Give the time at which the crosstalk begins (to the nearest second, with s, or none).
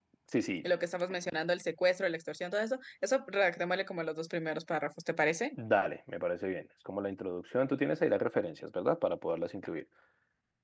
none